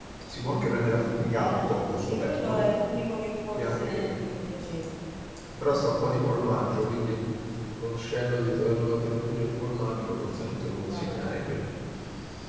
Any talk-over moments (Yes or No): Yes